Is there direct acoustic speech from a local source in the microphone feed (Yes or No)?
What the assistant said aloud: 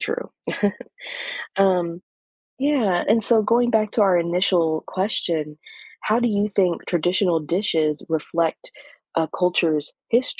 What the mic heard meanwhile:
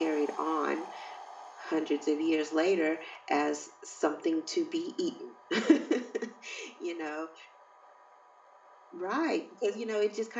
Yes